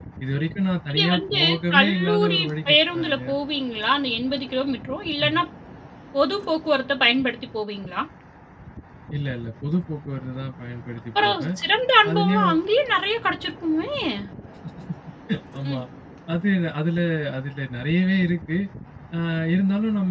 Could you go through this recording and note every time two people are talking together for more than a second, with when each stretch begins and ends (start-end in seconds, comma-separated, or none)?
0.9-3.3